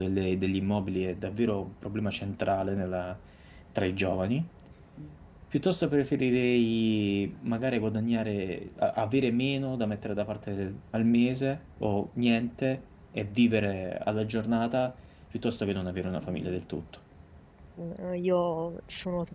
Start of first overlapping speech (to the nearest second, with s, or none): none